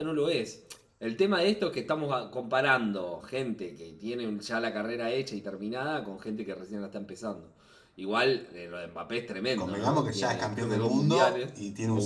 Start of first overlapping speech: 9.6 s

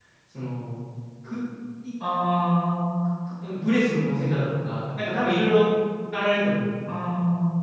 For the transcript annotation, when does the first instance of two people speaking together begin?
none

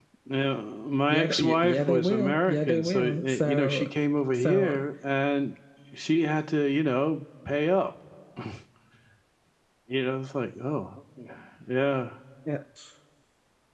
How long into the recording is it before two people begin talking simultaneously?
1.1 s

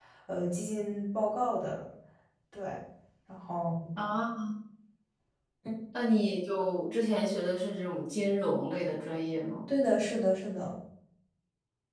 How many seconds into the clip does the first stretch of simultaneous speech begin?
none

